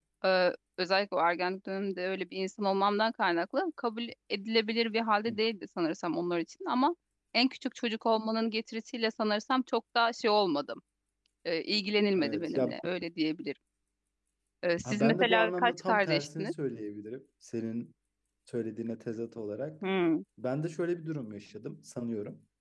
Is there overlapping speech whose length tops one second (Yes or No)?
Yes